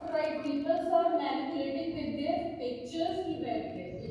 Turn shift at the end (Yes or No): No